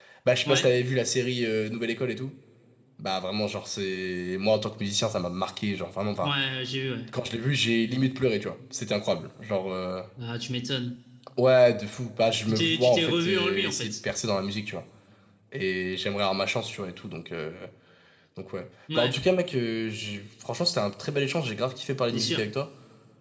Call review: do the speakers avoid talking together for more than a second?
No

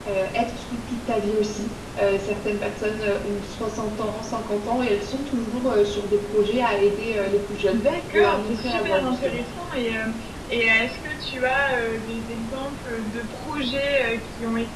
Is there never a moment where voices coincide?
No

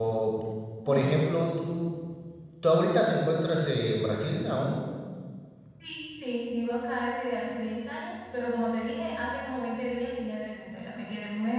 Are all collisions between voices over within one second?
Yes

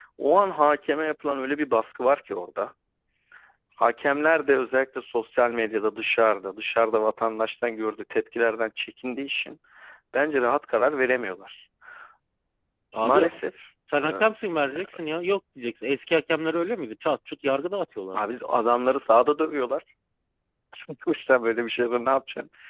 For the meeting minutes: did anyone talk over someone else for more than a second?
No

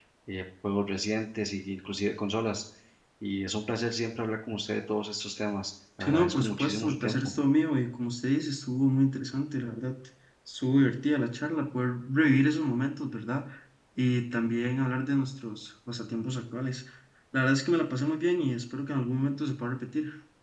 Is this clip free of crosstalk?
No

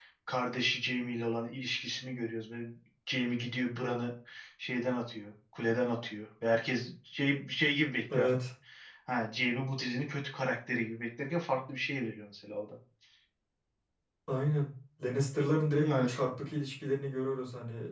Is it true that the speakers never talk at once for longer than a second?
Yes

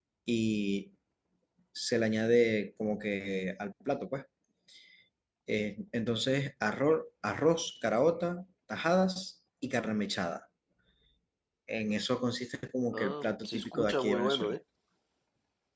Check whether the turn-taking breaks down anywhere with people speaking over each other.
Yes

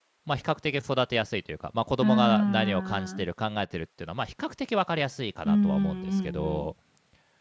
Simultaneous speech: Yes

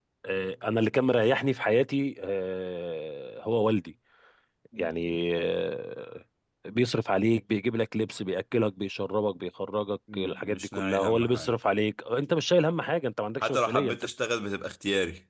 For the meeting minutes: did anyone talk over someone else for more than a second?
Yes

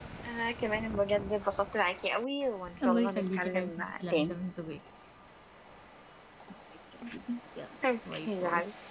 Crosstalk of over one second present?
Yes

